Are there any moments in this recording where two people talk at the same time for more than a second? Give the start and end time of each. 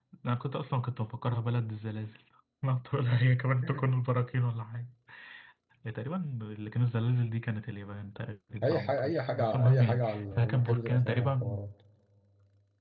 8.6-11.6

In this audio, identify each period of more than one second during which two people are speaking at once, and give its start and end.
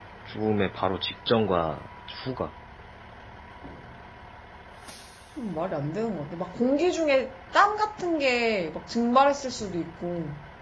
none

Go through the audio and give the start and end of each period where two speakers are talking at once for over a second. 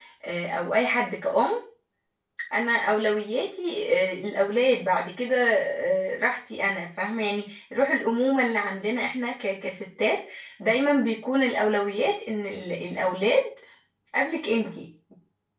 none

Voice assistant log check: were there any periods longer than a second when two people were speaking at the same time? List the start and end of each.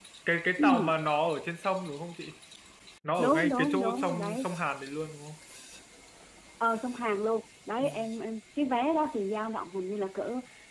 3.2-4.4

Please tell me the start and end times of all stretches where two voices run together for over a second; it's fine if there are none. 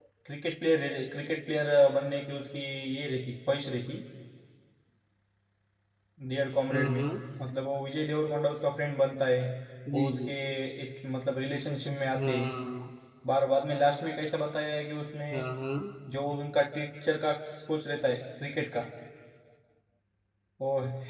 none

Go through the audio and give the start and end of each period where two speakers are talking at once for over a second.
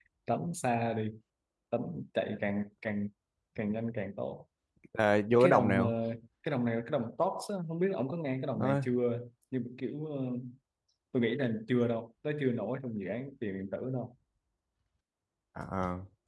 none

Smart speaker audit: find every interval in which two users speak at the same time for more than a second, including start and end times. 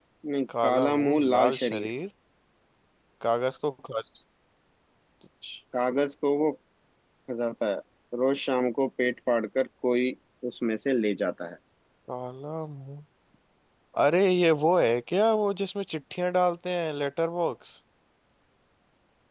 0.6-1.9

